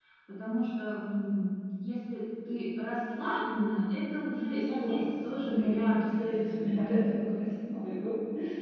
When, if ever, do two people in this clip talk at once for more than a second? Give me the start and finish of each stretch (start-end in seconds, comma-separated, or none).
4.6-6.2